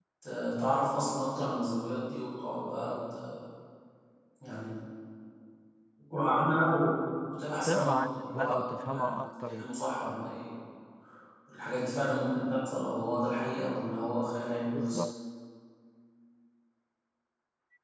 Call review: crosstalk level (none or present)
present